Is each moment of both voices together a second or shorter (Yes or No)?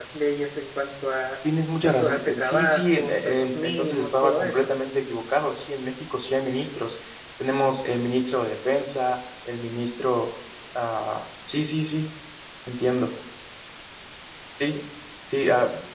No